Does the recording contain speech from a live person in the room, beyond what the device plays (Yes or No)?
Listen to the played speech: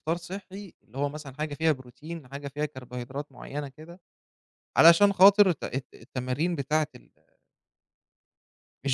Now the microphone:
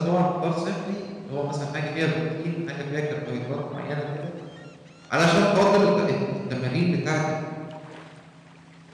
No